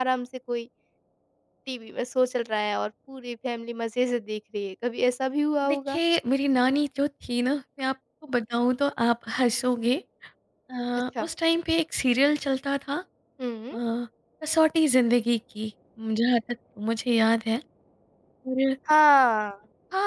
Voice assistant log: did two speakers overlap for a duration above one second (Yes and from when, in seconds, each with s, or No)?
No